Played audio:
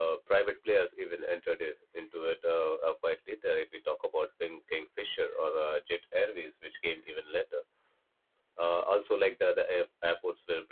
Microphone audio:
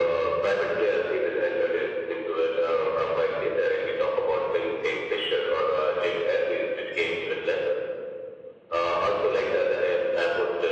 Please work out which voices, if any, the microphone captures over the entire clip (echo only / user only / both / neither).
echo only